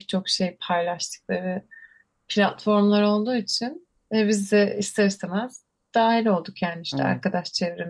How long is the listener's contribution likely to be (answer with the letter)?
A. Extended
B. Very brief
B